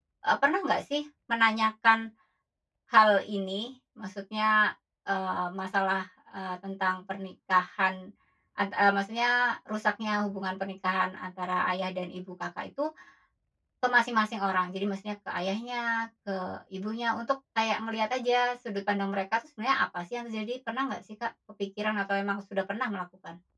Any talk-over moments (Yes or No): No